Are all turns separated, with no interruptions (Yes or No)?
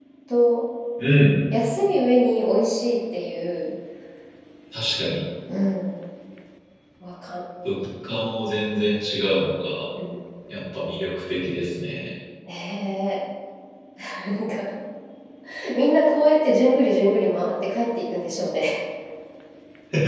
Yes